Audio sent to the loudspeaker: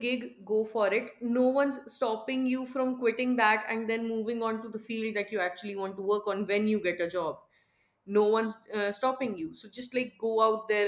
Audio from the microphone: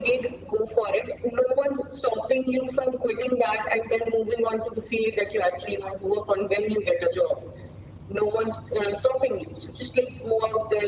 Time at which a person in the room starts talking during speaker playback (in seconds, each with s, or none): none